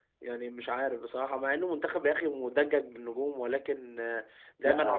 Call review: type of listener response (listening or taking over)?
listening